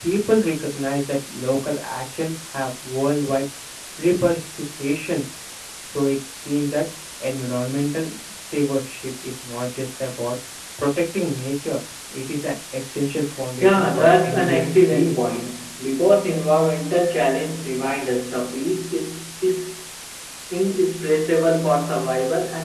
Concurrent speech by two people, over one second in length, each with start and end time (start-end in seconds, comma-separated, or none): 13.6-15.2